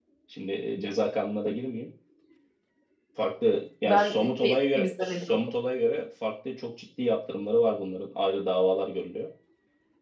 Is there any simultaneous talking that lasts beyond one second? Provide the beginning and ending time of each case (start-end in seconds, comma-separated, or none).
3.9-5.4